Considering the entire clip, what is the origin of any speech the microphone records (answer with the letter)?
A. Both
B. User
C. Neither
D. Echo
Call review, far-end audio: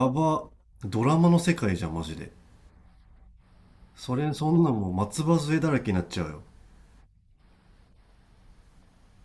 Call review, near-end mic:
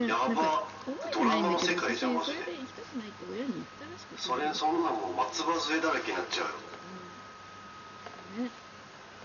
A